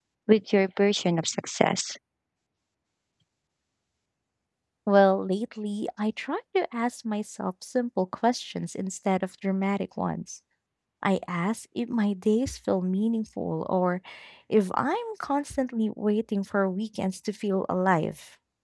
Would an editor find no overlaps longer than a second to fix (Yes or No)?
Yes